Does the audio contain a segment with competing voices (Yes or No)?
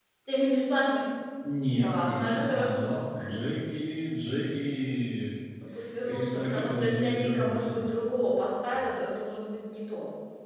Yes